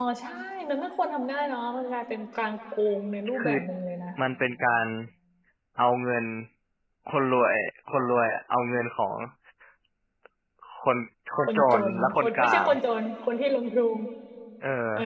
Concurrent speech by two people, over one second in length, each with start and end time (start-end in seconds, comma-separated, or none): 11.5-12.7